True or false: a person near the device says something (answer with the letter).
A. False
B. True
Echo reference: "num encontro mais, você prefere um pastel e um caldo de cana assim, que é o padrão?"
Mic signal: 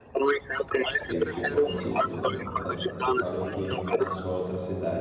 B